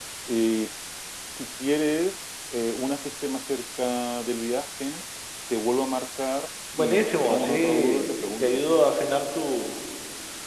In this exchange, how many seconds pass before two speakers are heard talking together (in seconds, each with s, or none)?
6.7 s